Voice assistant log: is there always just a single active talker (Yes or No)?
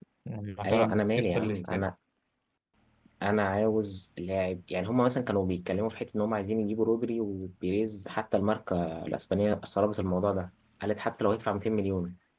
No